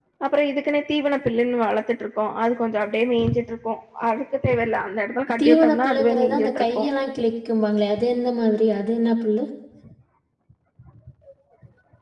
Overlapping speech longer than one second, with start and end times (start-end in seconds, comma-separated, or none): 5.4-6.9